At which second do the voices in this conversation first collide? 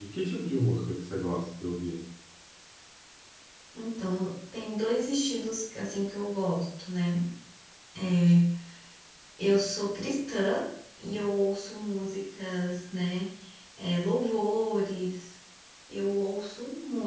none

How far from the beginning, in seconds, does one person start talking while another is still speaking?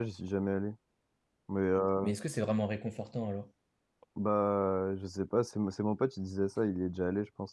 none

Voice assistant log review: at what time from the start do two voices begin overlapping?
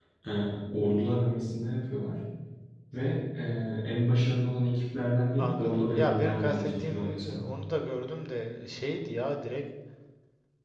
5.4 s

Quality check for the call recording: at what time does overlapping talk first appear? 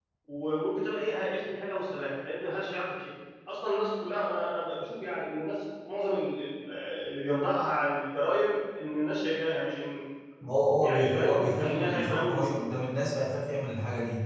10.7 s

